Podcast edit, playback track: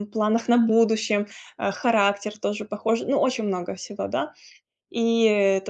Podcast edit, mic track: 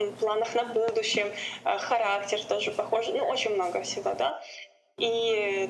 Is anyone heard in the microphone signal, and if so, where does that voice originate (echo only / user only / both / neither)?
echo only